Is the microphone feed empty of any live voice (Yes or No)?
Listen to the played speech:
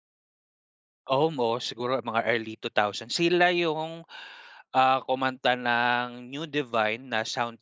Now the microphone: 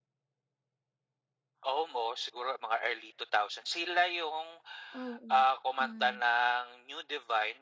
No